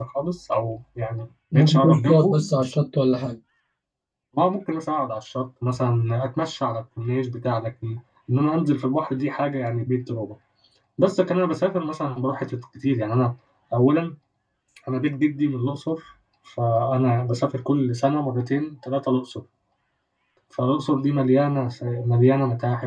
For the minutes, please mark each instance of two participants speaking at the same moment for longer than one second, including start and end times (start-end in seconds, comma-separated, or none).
1.5-2.8